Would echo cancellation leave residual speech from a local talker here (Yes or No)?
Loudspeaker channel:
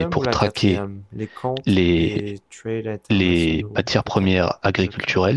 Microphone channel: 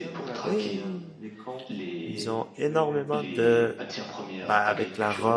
Yes